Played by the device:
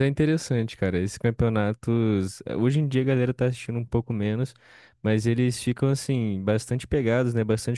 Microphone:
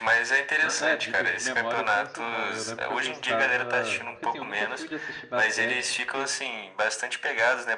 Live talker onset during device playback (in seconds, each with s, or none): 0.6 s